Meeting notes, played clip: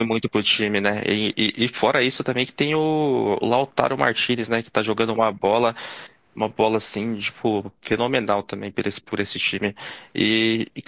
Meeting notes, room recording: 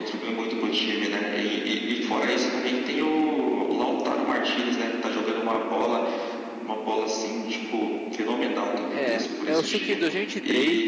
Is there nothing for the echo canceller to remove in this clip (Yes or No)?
No